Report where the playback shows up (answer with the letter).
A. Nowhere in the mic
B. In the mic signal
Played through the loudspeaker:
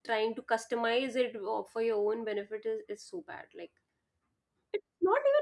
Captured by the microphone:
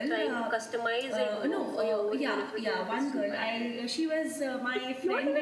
B